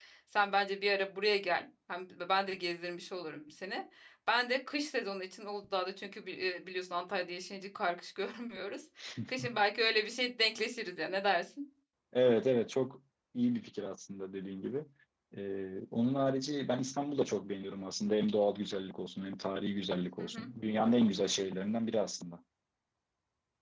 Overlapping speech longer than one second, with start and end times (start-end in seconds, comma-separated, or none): none